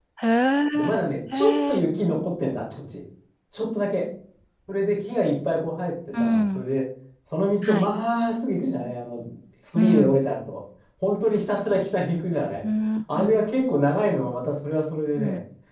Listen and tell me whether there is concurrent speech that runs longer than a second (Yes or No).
No